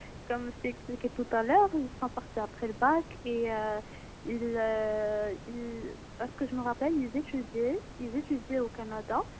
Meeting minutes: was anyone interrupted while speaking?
No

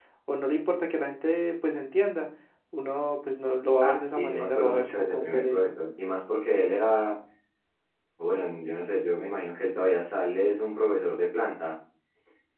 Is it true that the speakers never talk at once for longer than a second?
No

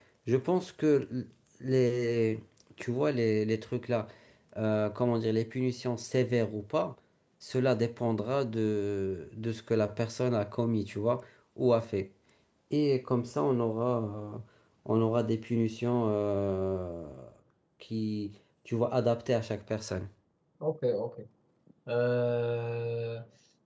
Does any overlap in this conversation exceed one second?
No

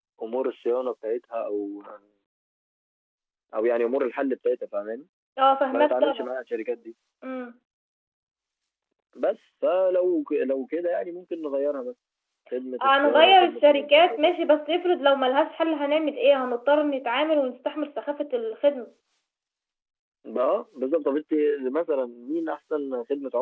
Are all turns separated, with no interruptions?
No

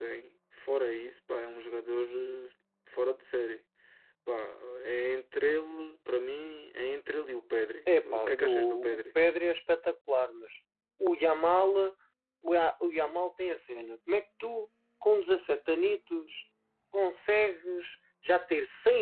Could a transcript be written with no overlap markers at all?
No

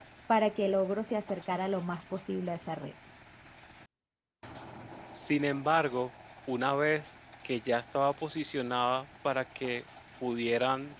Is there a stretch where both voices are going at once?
No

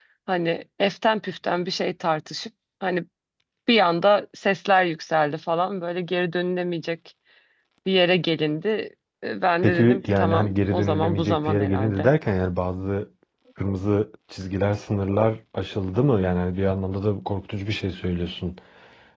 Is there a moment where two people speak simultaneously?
Yes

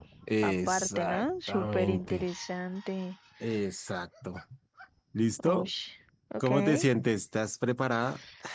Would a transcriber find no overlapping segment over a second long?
No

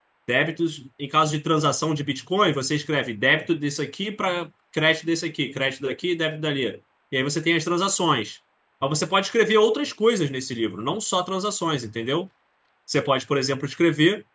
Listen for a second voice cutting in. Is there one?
No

